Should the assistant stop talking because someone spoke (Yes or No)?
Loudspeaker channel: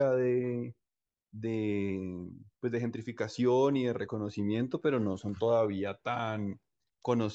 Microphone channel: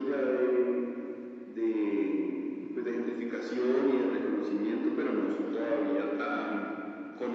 No